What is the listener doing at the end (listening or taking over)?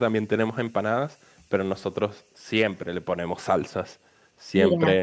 listening